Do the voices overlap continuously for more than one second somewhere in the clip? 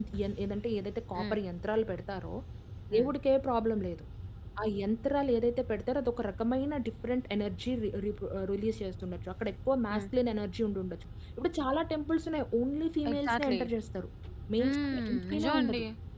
Yes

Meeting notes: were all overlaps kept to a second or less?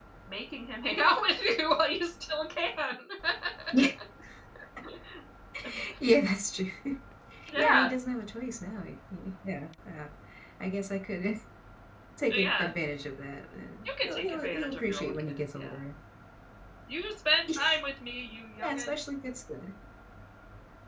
No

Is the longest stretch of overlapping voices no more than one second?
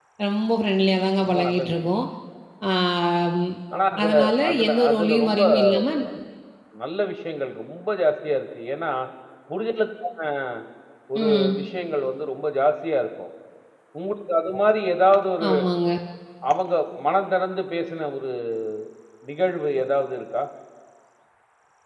No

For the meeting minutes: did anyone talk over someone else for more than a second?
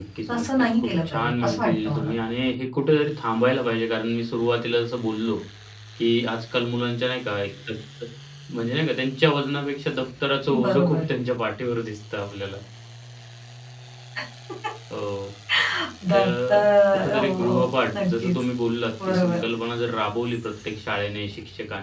Yes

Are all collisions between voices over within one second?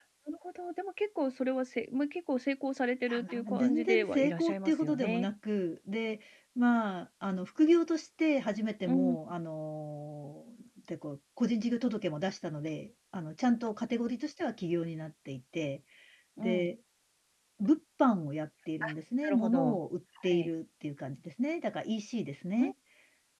No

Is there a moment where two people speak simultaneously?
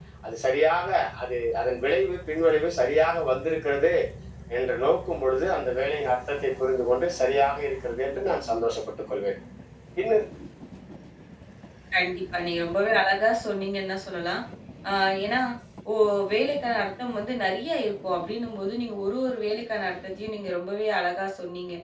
No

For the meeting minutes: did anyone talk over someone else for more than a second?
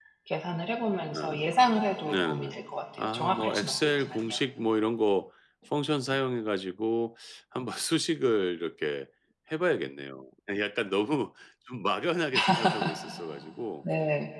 Yes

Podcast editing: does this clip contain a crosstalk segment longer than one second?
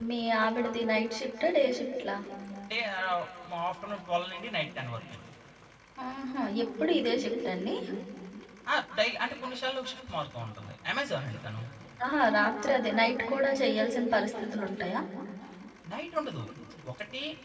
No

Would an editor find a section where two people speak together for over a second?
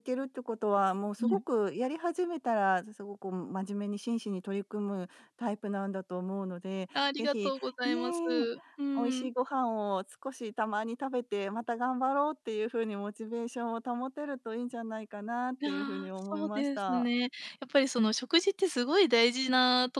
Yes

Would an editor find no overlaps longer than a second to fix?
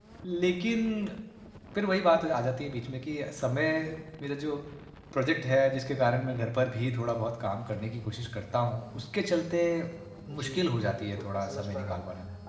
No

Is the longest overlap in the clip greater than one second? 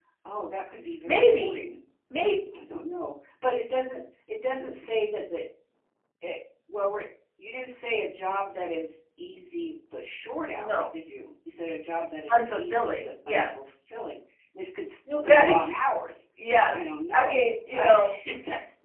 Yes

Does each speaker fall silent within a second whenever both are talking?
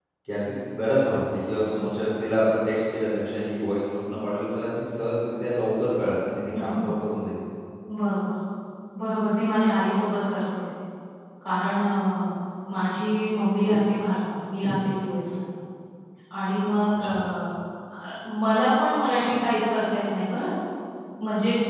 Yes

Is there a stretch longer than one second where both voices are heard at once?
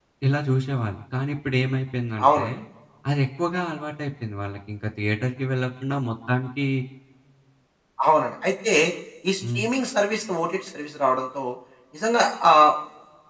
No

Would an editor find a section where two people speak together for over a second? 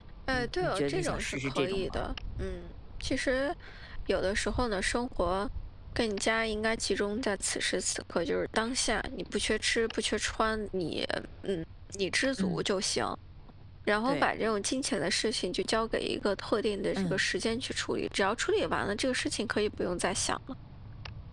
Yes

